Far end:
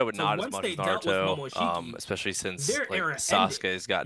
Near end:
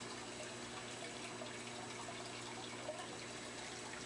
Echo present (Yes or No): No